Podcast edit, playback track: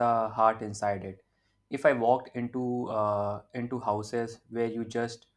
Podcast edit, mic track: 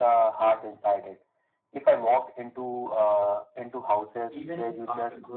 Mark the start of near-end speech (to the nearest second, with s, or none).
4 s